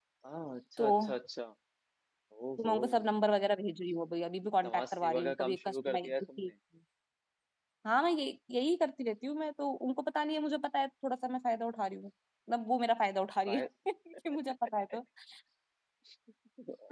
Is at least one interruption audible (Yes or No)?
Yes